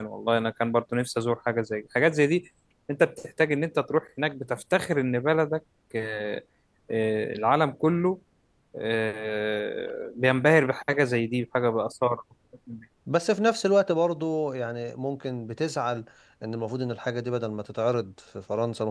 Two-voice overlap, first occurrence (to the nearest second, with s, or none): none